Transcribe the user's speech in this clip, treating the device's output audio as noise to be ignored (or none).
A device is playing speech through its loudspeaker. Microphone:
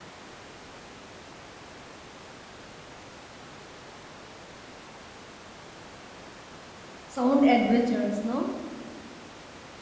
Sound adventurous, no?